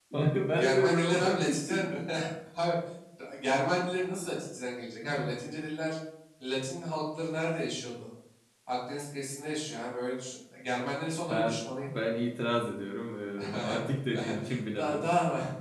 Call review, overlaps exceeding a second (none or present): present